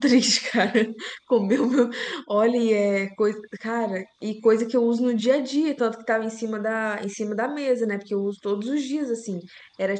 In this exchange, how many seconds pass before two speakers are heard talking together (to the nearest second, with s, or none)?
none